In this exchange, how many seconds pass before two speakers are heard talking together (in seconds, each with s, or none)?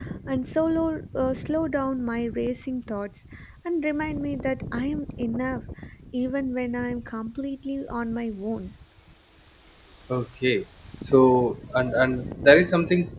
none